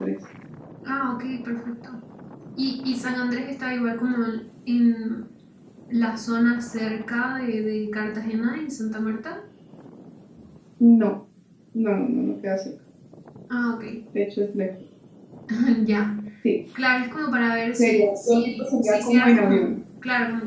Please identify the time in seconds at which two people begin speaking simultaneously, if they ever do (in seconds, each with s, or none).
17.8 s